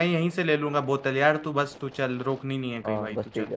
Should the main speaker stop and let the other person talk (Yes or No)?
Yes